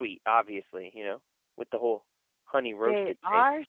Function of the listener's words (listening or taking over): taking over